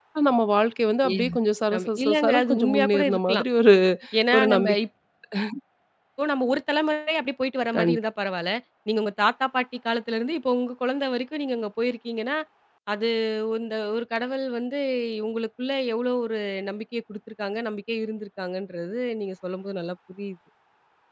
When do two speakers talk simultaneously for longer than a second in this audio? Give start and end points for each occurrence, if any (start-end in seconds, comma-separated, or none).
1.7-3.4